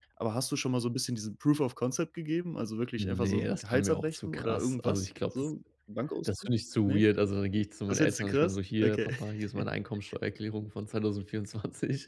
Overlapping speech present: Yes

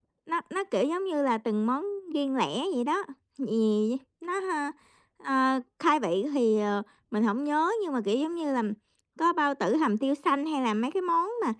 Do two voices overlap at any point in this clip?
No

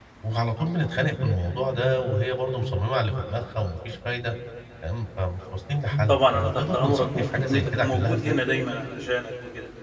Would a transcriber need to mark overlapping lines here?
Yes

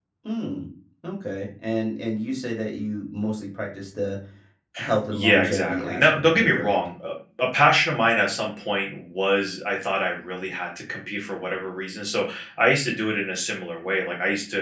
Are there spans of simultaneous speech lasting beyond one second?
Yes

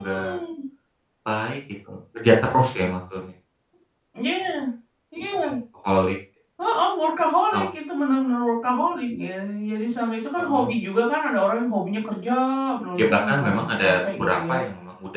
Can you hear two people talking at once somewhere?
Yes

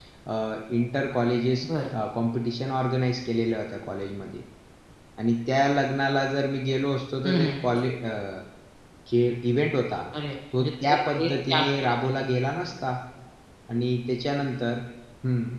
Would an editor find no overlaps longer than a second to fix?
No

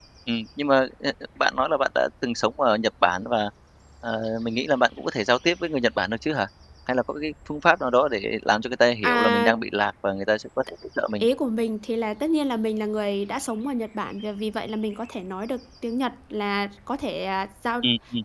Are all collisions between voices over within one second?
Yes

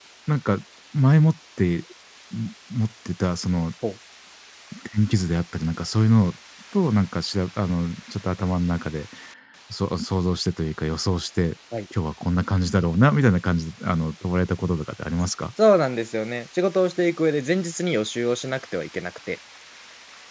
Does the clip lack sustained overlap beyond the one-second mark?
Yes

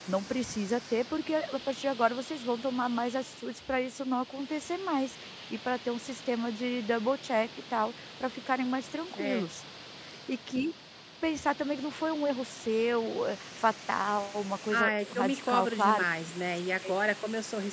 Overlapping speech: Yes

